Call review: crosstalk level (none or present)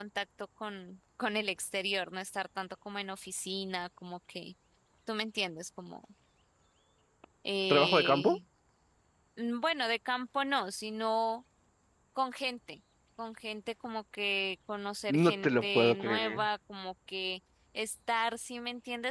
present